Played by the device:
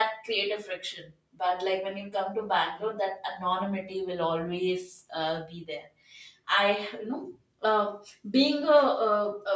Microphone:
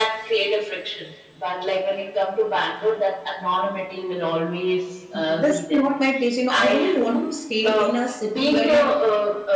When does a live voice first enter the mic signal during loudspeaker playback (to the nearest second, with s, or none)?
5 s